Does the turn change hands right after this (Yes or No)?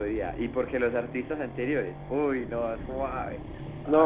Yes